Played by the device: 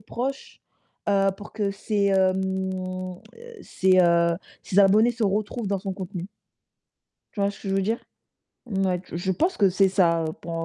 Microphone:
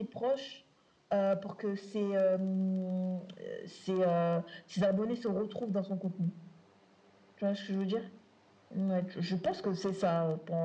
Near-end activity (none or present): none